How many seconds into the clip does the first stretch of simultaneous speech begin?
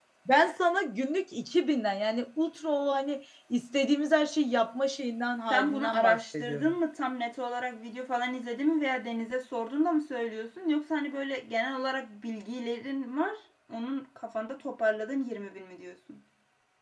6 s

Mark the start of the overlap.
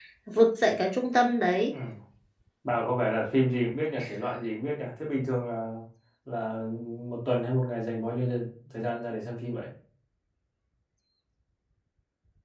none

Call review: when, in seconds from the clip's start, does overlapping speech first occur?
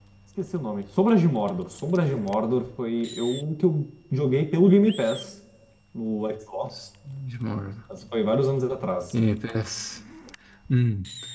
none

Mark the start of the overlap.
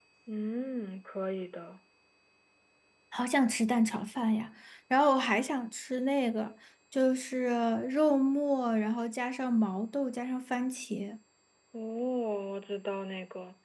none

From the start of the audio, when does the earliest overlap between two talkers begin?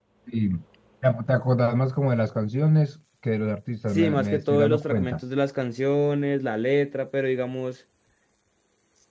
4 s

